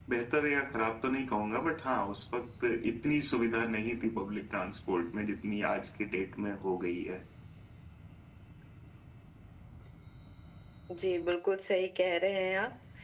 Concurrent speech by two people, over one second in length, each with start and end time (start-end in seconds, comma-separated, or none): none